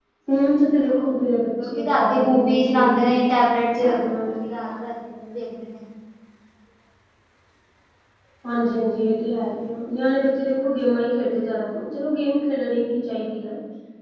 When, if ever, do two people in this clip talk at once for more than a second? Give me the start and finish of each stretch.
1.6-3.2

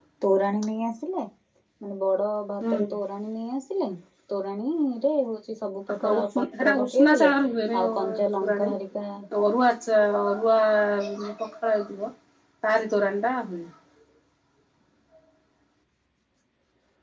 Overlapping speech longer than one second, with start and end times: 6.0-7.3

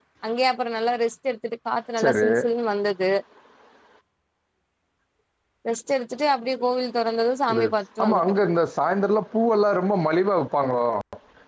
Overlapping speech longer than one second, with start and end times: none

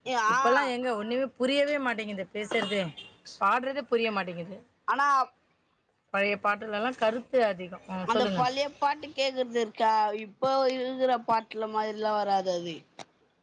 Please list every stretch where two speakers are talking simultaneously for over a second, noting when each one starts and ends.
none

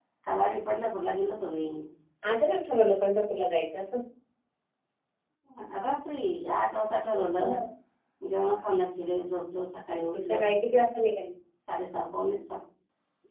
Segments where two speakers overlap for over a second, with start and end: none

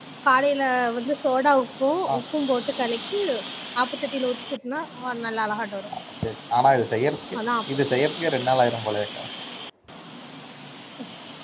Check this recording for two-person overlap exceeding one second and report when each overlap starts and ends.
none

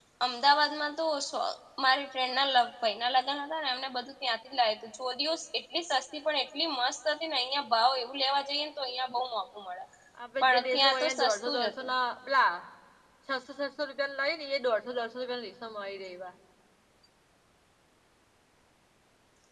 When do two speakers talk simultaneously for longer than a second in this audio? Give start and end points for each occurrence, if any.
10.4-11.7

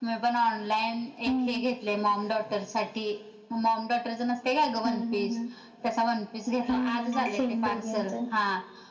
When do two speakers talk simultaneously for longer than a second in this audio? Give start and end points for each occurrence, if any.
6.7-8.1

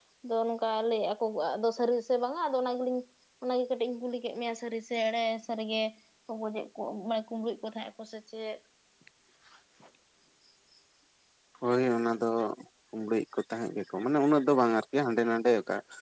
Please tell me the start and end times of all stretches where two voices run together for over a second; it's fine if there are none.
none

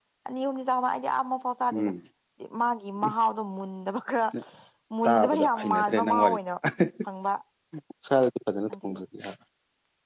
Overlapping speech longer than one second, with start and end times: 5.0-6.4

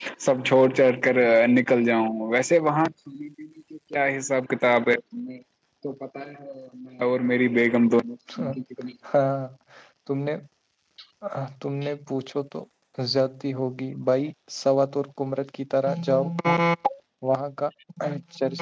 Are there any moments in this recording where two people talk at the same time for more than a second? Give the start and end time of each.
none

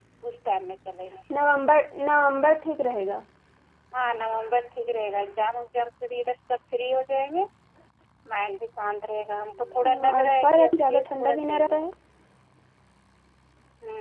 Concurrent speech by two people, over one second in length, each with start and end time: 10.1-11.8

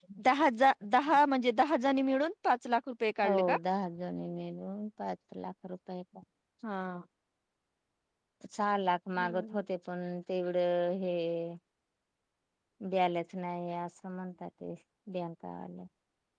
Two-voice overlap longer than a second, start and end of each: none

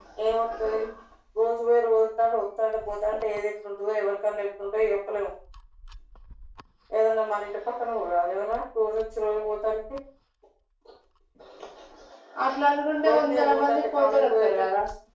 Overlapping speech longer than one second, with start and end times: 13.1-14.6

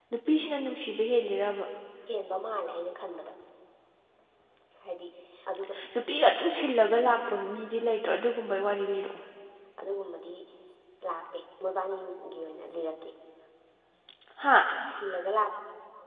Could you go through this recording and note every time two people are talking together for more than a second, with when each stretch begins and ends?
none

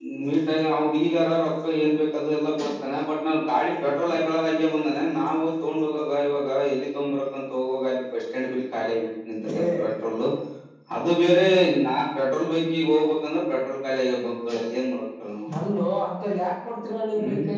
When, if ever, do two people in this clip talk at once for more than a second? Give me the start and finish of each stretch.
none

